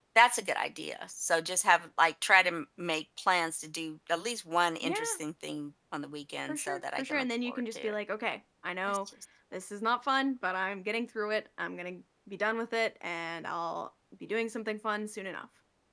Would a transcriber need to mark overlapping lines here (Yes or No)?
Yes